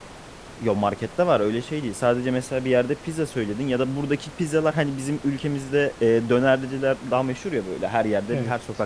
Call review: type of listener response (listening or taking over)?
listening